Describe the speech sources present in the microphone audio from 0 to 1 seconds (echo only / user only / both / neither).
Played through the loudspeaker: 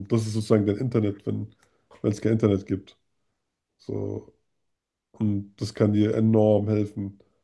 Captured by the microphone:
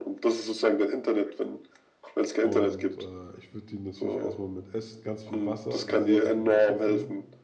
echo only